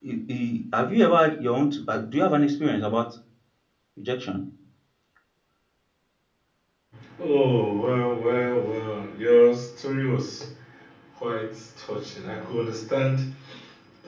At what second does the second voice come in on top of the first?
none

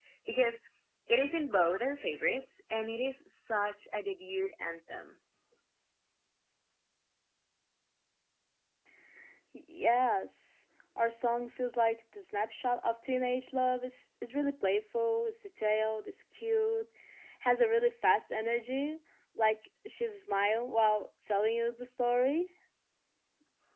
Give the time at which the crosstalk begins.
none

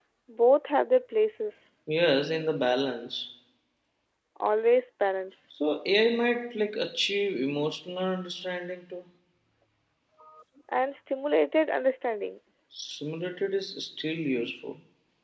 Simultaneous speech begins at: none

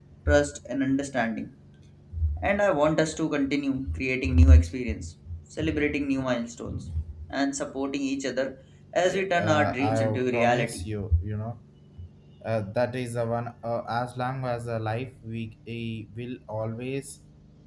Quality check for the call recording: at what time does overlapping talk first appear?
9 s

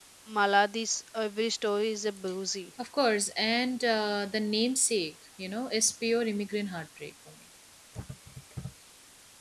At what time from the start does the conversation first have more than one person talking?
none

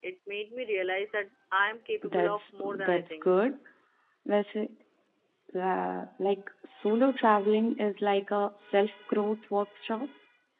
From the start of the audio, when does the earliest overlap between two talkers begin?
2 s

